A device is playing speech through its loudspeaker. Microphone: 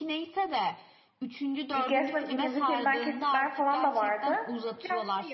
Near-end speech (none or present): present